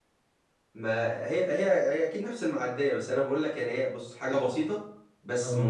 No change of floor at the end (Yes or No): Yes